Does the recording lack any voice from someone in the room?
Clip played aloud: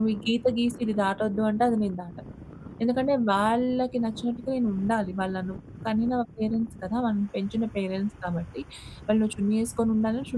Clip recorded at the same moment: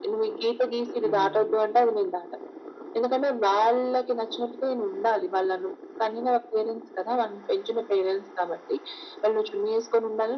No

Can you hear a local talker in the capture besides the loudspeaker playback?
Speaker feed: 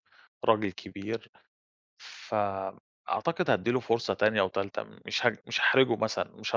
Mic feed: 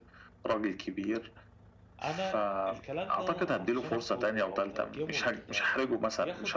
Yes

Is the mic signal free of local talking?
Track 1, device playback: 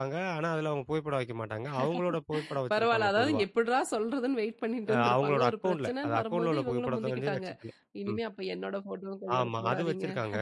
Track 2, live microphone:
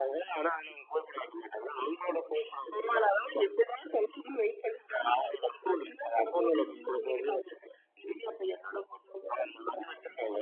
Yes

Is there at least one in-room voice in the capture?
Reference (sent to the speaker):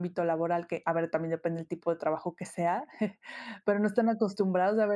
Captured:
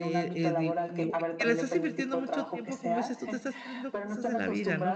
Yes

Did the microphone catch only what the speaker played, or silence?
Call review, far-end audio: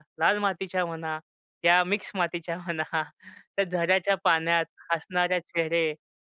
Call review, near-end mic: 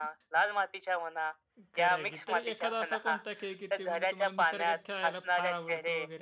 No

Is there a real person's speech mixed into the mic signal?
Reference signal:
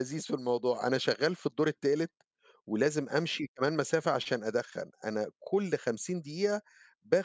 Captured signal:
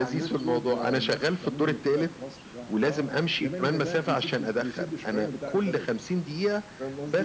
Yes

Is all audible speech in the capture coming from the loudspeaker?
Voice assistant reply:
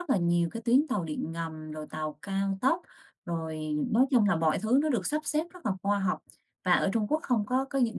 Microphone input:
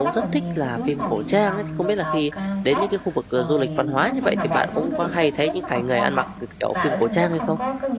No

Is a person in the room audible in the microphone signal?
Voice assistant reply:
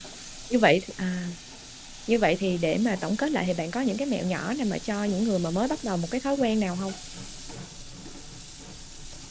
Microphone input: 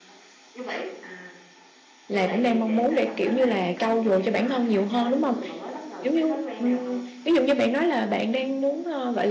Yes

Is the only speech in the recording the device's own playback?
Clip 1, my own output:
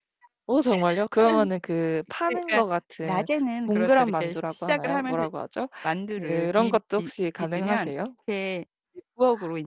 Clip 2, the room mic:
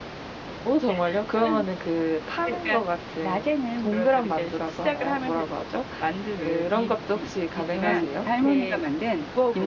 No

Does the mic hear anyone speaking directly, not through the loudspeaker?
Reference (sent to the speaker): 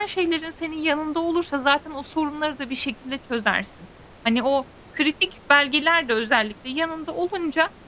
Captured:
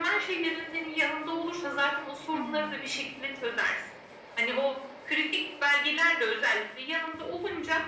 Yes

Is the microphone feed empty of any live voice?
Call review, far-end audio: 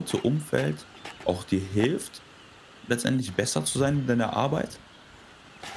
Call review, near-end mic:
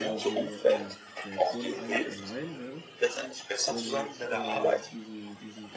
No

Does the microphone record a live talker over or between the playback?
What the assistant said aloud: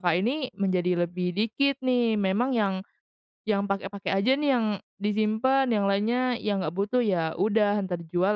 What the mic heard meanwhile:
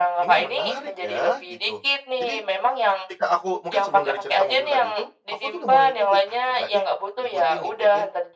Yes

